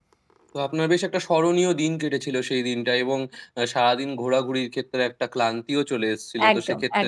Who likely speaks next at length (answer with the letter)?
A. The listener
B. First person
B